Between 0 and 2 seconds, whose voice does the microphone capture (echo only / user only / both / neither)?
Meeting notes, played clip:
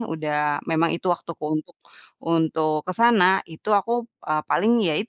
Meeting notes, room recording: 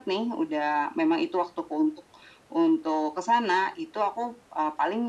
echo only